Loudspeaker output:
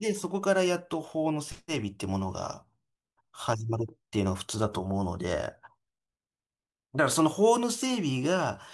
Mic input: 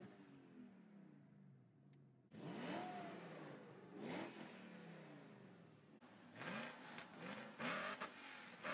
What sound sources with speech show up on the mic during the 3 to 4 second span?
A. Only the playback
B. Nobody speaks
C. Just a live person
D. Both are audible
B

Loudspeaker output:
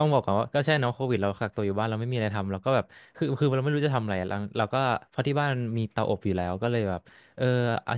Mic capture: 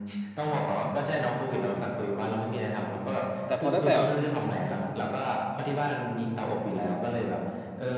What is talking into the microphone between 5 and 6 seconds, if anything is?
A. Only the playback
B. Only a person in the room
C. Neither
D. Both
A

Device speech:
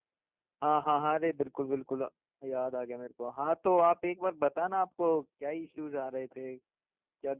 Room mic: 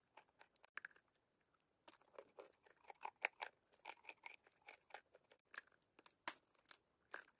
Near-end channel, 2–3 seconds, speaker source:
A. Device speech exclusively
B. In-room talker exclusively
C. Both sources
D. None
D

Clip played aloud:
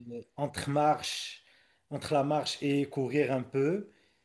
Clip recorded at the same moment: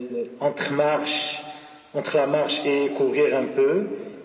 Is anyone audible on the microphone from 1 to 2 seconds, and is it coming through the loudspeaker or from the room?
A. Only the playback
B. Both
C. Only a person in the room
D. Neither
A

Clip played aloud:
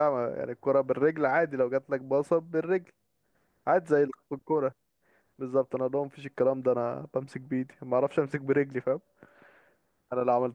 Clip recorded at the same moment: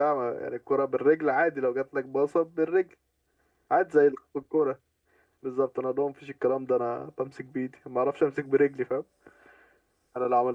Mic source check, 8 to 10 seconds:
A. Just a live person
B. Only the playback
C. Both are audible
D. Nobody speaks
B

